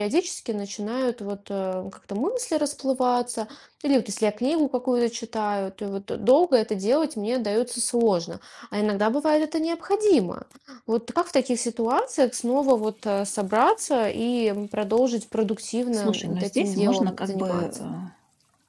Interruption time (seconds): 16 s

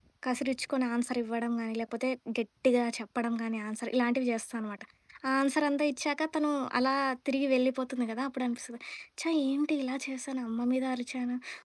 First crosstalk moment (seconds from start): none

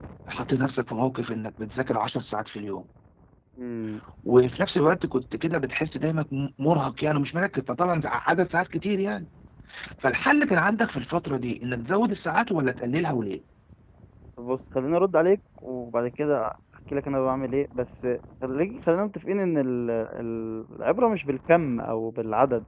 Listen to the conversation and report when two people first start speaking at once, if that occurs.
none

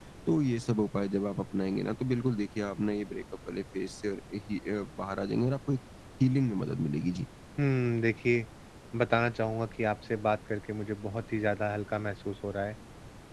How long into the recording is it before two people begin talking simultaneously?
none

